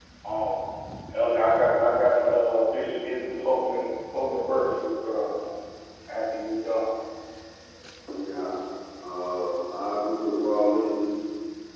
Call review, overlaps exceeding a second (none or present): none